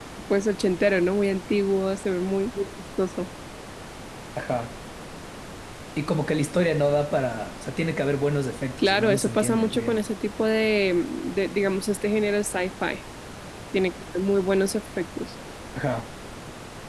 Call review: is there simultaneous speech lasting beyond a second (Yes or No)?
Yes